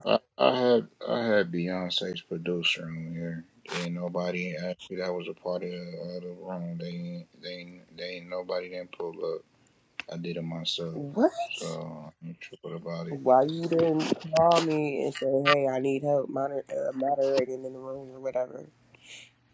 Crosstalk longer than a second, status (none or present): none